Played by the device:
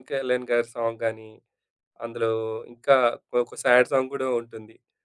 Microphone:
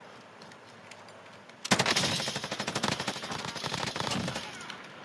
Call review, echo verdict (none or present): none